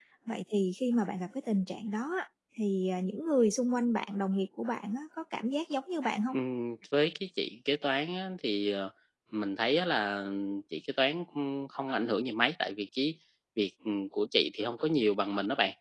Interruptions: none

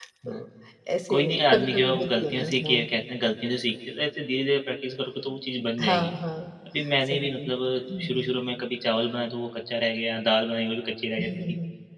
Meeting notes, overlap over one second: present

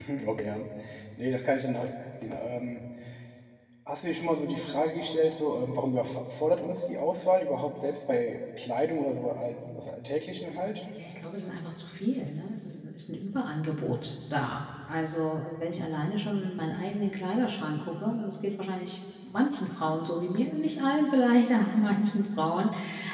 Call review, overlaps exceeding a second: none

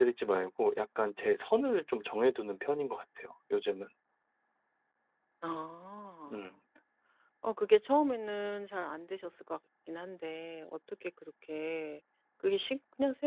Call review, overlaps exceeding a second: none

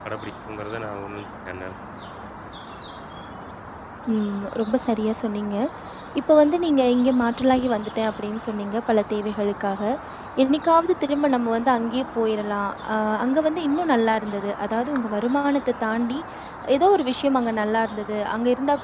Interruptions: none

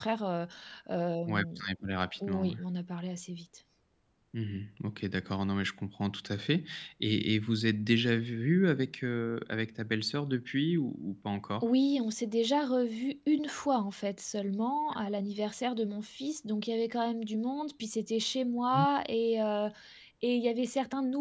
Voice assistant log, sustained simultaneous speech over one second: none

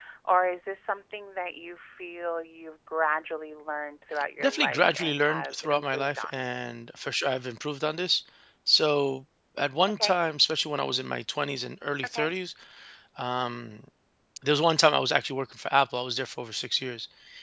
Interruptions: present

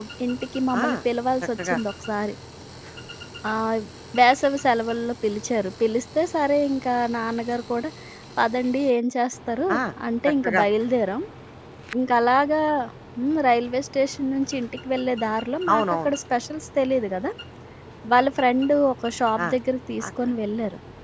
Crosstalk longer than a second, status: none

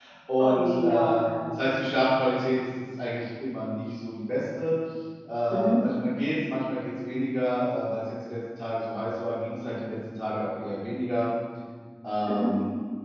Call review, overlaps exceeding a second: present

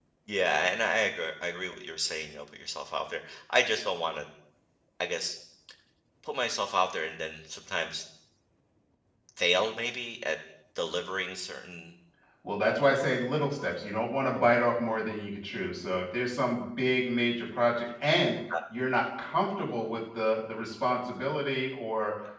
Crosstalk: none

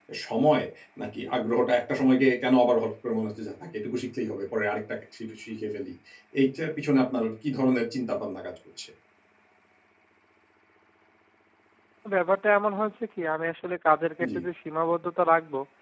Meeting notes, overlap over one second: none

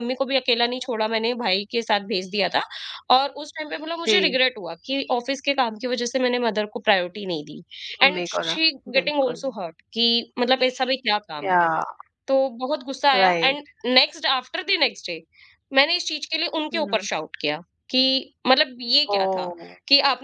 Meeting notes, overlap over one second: none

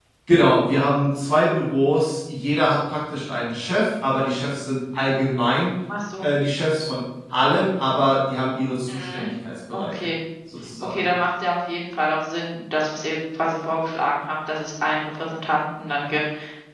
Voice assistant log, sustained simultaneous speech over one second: none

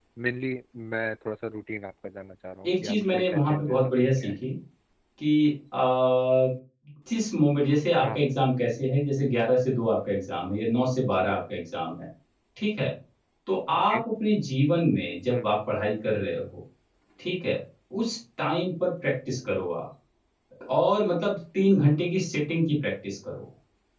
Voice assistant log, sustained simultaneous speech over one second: present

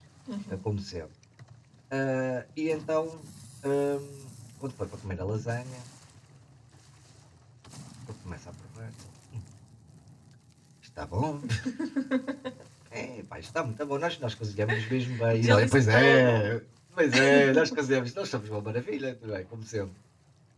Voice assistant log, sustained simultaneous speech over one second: present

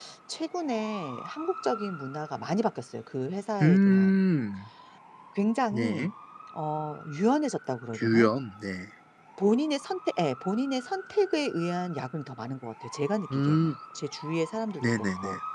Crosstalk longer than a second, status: none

